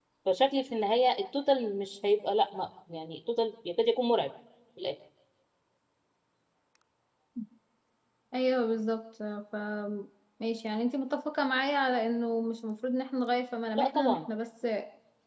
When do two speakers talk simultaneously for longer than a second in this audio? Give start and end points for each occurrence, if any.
none

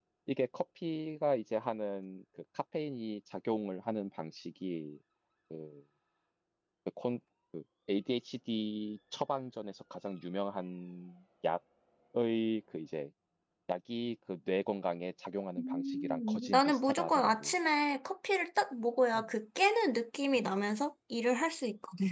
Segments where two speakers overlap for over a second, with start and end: 15.6-17.5

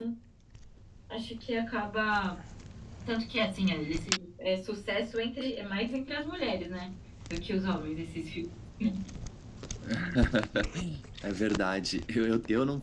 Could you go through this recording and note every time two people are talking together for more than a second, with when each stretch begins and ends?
none

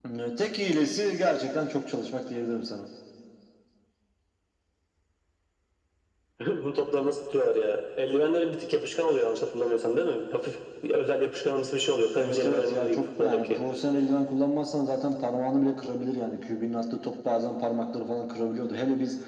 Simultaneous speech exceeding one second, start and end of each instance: 12.2-13.6

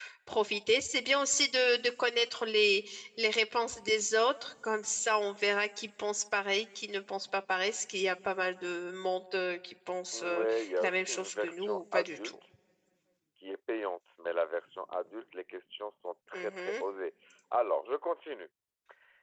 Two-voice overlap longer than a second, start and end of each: 10.1-12.3

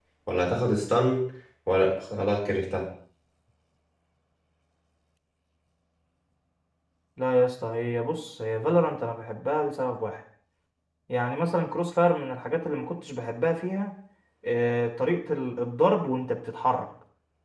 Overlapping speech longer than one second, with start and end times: none

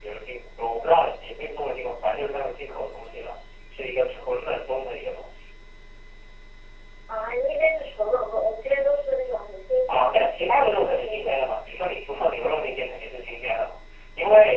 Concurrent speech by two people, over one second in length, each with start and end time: 9.9-11.4

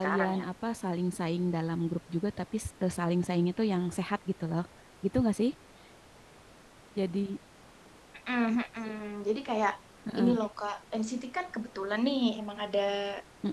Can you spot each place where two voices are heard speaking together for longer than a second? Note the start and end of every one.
none

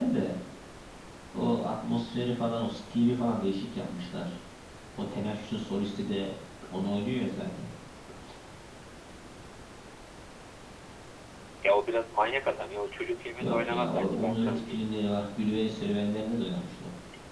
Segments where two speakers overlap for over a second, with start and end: 13.4-14.9

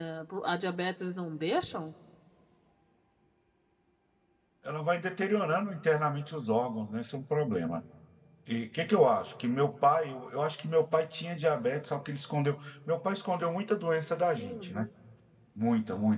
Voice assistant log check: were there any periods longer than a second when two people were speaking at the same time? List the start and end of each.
none

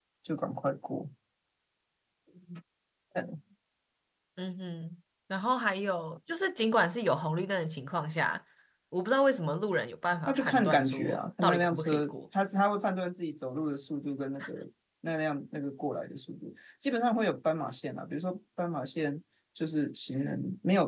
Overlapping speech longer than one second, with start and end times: 10.3-12.1

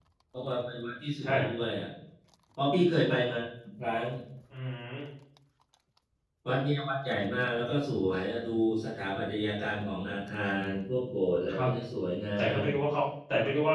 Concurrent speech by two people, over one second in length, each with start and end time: none

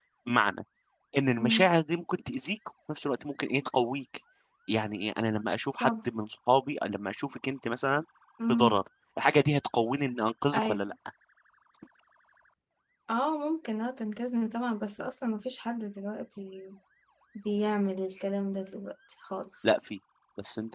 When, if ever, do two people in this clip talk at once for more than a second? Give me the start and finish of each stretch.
none

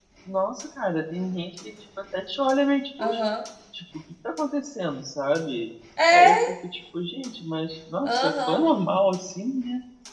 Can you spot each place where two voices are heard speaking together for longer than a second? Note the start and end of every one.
none

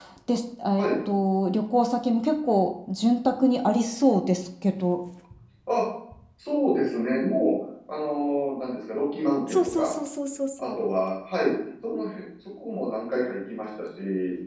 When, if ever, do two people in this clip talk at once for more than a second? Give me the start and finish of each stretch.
none

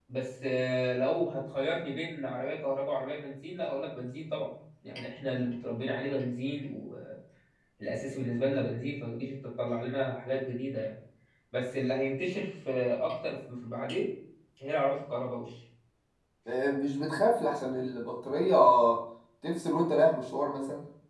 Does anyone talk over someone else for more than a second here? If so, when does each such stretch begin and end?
none

